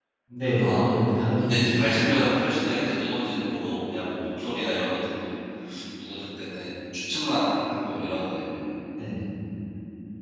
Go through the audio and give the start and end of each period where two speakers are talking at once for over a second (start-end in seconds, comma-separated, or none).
0.6-2.0